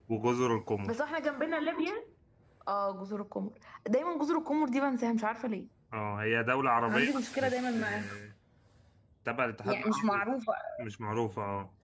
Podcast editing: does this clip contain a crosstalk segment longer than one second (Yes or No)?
Yes